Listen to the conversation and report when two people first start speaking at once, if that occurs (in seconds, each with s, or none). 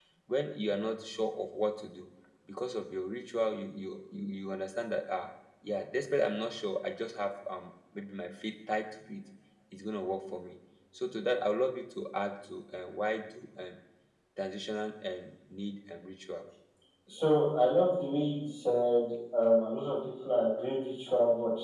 none